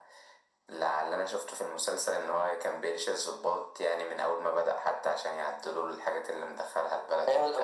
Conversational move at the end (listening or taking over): taking over